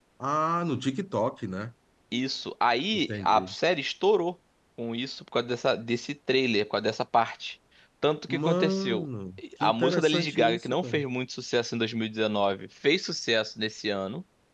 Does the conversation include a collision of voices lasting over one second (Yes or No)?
Yes